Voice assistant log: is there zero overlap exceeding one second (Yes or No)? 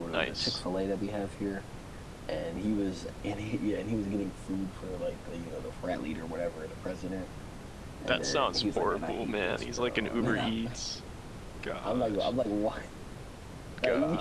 No